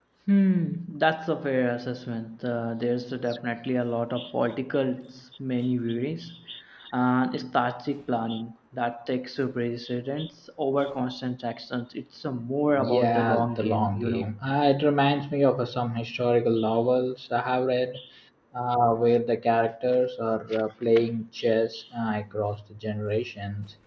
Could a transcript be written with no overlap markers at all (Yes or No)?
No